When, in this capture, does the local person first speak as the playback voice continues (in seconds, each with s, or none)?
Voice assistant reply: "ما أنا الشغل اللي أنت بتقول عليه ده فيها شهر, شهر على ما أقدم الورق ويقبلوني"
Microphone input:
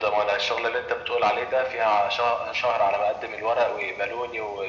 none